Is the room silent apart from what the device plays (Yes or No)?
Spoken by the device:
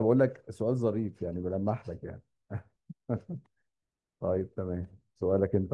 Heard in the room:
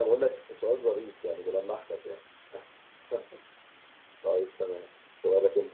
Yes